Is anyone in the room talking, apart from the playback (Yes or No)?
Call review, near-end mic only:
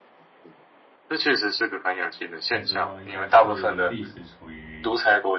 Yes